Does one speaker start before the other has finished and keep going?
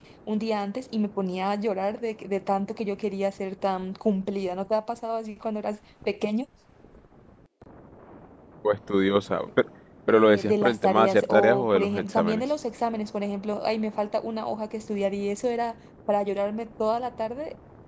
Yes, from 10.1 s

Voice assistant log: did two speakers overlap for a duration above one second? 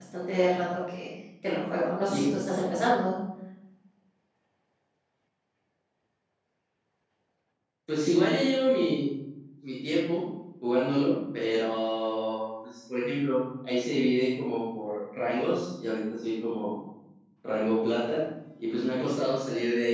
No

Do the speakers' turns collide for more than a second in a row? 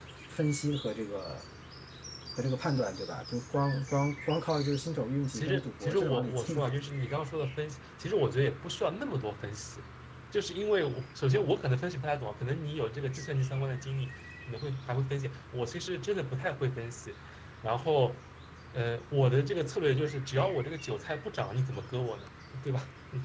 Yes, from 5.3 s

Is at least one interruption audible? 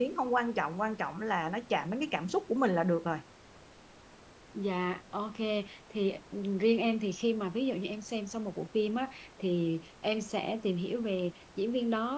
No

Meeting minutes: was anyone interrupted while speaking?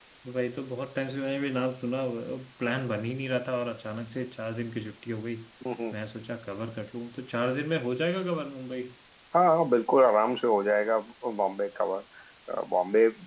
No

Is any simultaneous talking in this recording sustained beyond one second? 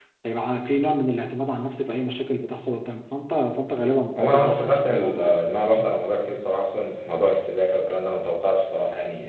Yes, from 4.2 s

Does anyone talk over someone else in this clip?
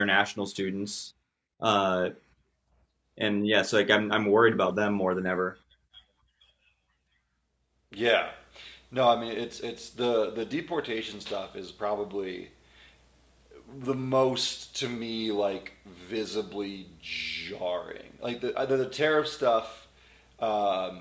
No

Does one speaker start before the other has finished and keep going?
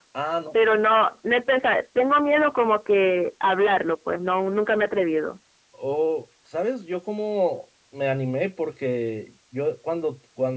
No

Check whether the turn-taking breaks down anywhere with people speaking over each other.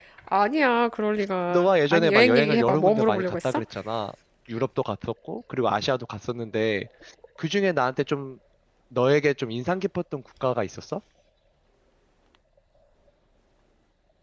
Yes, from 1.5 s

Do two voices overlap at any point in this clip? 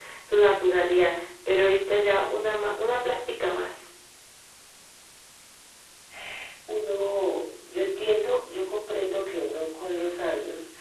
No

